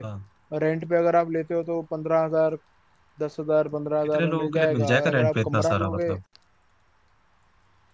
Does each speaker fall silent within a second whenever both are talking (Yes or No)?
No